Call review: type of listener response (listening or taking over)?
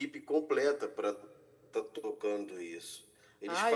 listening